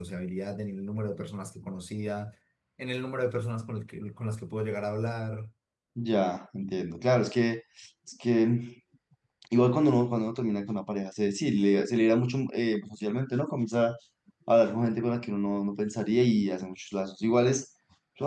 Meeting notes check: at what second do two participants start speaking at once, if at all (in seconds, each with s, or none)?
none